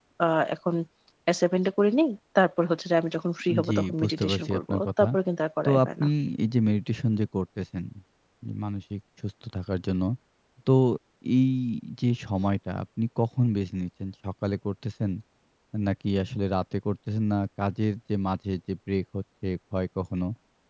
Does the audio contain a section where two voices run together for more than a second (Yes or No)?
Yes